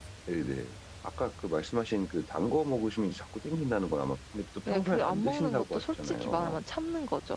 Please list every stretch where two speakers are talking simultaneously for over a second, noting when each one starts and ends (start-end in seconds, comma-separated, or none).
4.7-6.6